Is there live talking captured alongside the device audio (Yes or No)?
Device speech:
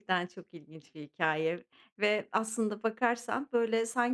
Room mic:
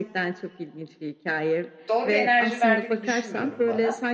Yes